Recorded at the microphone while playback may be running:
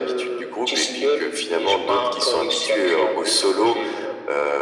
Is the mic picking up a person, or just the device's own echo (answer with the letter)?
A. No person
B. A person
A